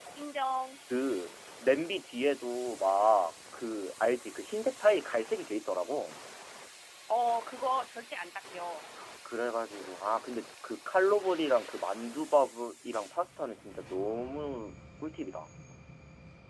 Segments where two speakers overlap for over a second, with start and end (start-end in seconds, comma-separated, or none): none